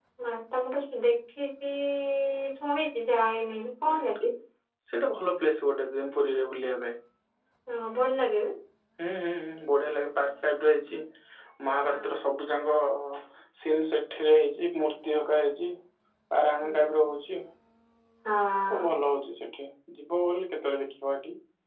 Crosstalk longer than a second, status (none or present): none